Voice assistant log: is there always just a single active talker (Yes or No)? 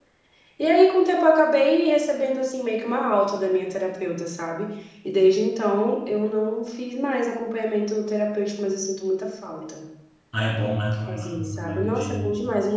No